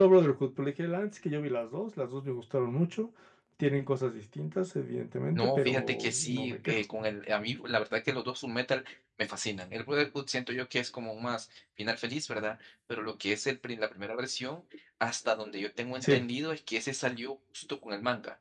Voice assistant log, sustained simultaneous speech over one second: present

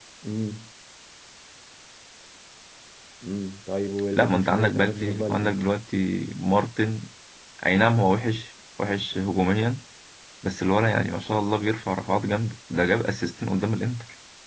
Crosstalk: present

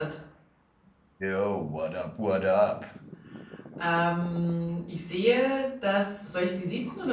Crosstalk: none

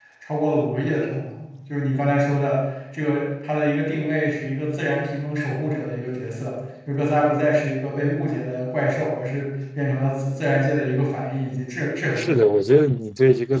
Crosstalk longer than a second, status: none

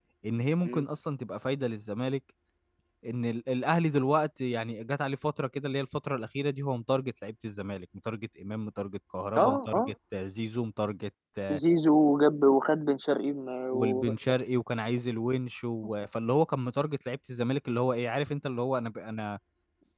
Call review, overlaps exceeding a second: none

